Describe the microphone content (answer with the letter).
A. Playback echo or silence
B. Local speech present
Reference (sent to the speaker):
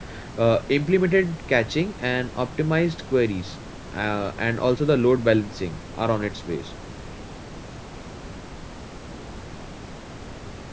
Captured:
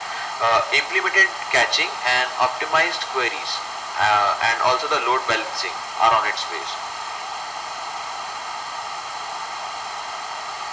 A